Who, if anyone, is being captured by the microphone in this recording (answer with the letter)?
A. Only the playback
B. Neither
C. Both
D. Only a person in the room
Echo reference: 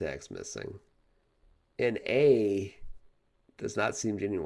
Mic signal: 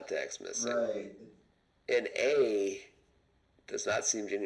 C